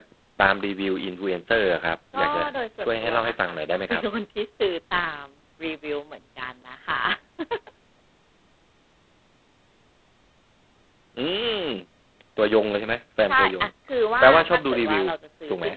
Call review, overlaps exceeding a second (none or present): present